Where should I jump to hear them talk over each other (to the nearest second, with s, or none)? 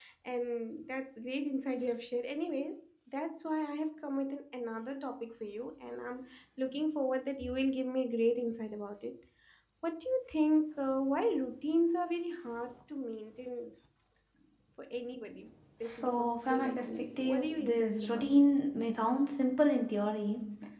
16 s